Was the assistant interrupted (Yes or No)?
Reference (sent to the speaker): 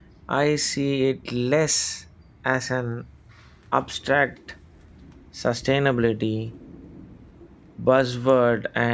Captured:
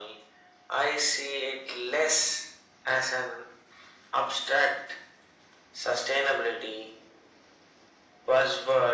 No